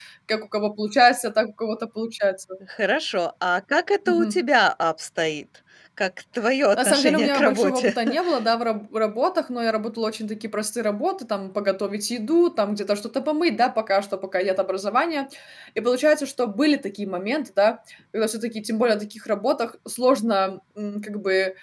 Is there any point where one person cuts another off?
Yes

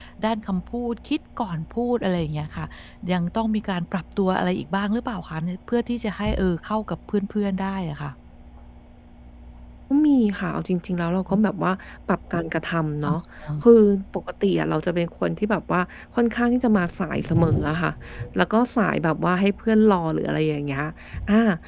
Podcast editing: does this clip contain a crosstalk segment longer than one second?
No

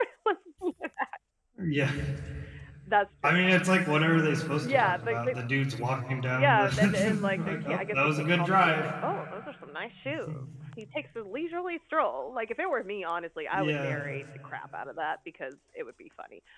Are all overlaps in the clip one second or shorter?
No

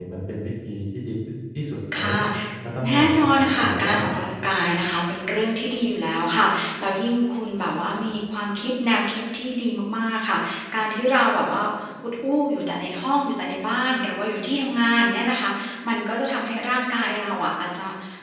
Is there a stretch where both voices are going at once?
Yes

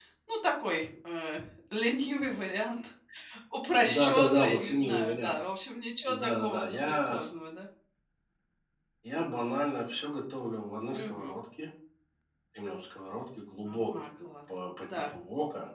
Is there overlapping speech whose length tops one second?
Yes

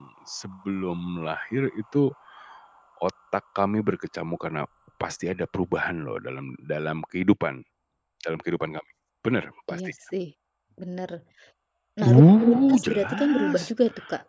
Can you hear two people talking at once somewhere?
Yes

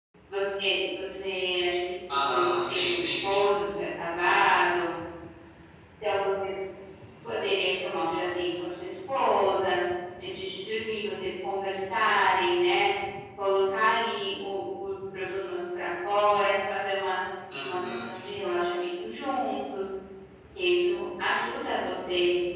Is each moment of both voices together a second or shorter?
No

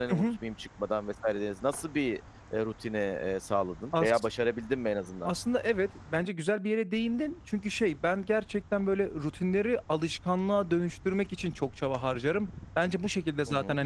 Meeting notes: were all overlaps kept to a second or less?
Yes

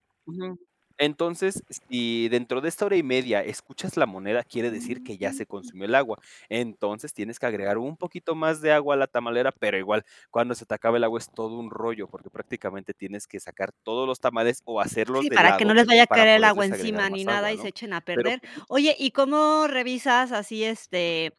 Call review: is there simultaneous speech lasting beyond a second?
Yes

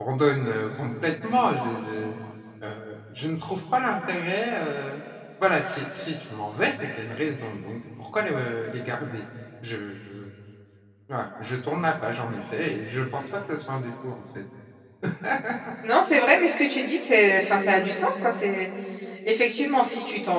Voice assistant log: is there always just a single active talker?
Yes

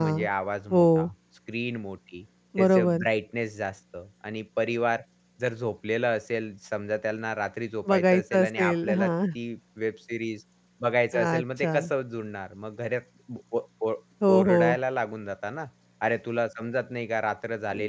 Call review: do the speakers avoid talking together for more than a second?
No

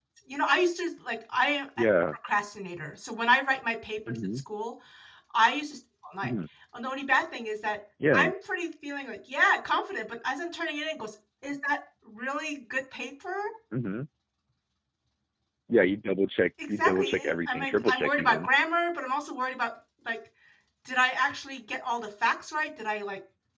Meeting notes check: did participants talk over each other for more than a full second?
Yes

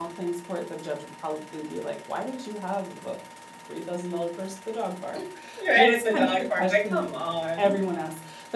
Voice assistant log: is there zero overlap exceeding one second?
No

